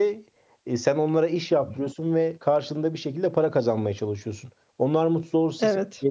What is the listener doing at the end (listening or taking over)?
listening